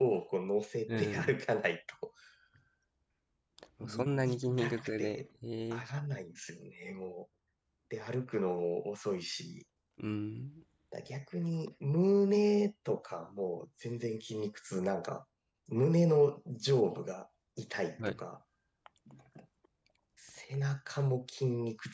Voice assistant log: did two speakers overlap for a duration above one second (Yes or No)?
Yes